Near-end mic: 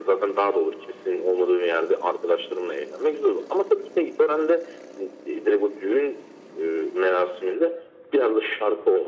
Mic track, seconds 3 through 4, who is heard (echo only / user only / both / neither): echo only